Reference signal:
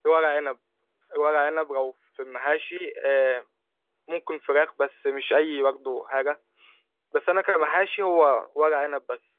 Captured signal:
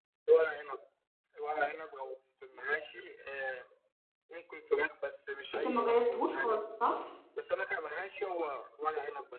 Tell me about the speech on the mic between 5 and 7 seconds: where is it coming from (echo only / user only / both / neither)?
both